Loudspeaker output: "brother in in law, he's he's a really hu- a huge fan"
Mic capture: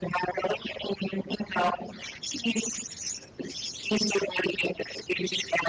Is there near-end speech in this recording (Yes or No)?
No